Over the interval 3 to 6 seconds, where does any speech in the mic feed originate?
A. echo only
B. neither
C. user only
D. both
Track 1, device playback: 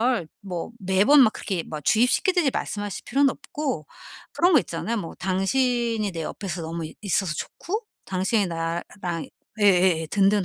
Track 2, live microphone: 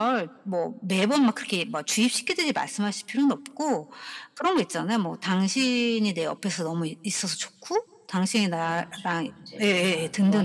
A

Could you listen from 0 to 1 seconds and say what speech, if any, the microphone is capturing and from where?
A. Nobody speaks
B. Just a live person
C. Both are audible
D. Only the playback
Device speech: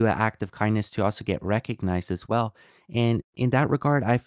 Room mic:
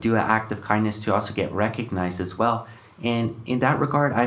D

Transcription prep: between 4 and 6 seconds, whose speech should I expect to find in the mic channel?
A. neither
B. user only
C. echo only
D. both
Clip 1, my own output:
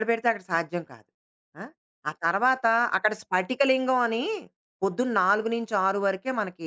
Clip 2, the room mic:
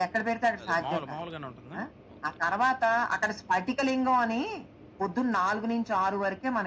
C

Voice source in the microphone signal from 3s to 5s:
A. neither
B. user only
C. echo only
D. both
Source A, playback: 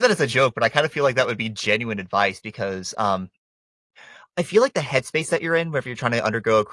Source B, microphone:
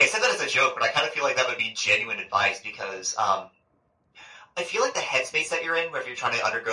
C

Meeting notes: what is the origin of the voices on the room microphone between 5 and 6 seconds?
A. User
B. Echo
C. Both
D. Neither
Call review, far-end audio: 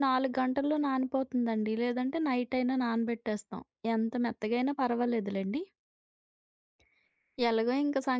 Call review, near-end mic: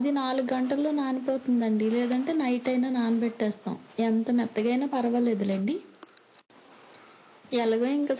B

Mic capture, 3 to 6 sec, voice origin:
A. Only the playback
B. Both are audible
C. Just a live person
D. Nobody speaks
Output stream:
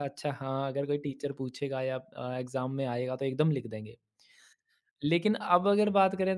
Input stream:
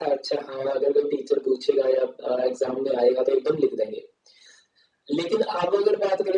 A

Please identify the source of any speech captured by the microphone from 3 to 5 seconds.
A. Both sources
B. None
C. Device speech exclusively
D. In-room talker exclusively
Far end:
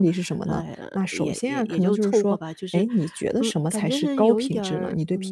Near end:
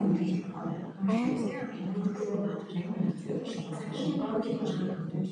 C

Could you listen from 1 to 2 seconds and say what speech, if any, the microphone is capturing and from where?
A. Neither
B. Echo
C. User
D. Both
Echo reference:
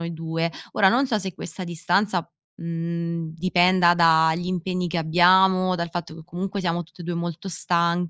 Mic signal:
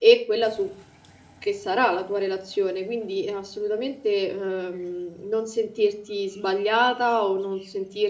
C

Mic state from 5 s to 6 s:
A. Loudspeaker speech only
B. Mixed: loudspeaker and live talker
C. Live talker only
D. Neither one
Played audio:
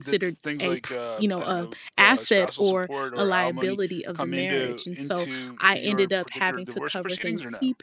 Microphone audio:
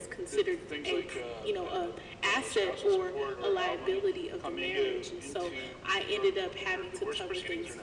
A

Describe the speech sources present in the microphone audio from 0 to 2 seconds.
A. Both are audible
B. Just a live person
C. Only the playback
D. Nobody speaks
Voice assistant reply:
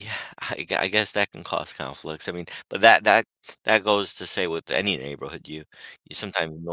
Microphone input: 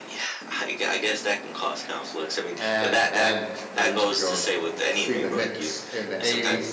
C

